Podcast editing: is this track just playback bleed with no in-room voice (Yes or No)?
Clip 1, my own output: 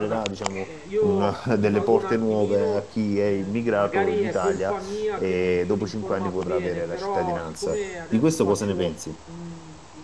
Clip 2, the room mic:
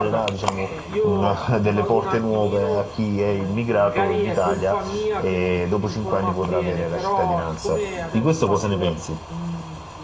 Yes